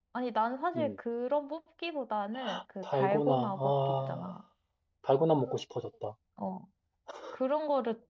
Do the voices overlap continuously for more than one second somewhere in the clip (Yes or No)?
Yes